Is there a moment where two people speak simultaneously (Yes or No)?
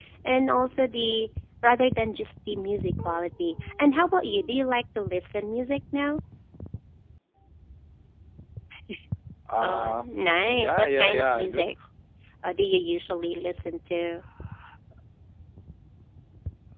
Yes